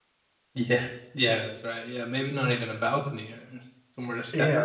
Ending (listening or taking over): taking over